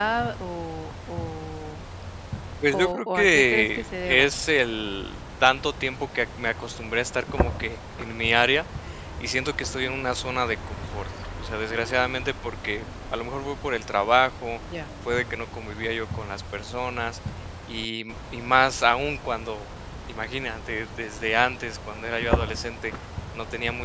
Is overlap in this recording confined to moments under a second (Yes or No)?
No